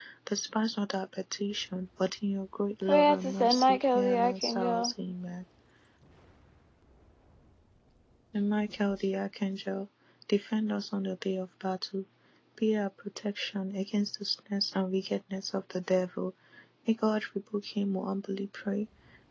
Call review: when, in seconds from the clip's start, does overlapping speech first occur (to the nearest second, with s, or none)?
3 s